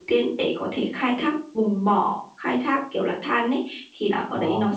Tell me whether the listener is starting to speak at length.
No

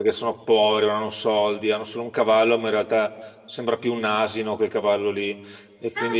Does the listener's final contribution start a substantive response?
Yes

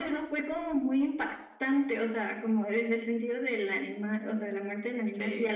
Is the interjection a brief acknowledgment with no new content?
Yes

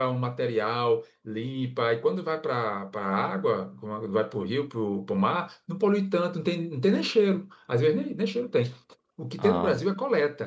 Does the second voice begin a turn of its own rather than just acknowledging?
No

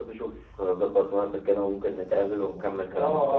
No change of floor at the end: No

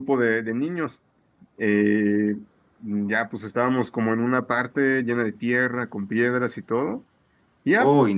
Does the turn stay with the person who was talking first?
Yes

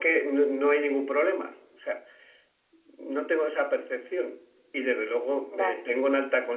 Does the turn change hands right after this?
No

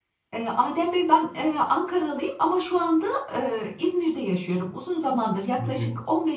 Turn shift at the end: No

